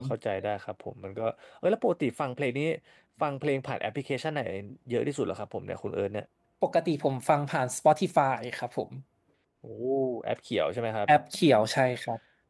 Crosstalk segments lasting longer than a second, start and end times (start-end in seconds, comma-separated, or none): none